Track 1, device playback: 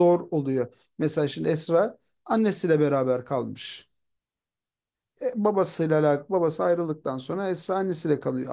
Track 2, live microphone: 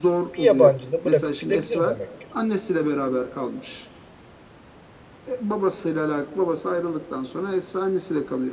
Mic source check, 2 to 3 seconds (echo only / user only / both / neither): both